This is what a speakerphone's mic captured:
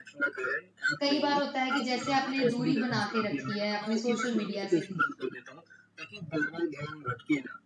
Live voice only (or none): कई बार होता है कि जैसे आपने दूरी बना के रखी है अपने सोशल मीडिया से,